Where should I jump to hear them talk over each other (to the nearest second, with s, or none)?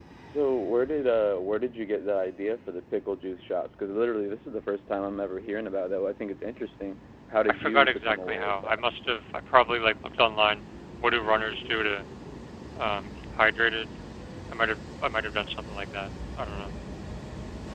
7 s